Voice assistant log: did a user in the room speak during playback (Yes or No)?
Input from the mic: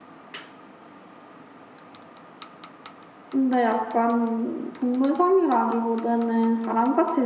Yes